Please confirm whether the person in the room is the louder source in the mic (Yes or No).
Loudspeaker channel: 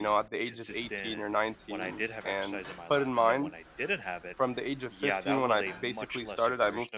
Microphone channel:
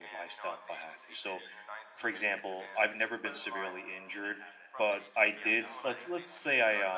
Yes